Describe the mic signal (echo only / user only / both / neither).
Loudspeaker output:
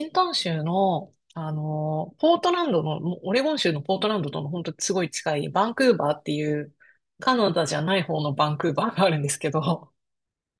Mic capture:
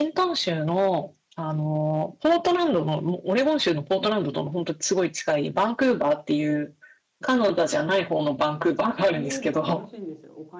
both